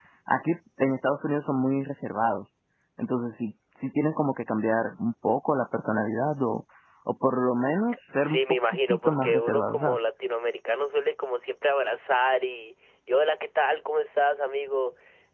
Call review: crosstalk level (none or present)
present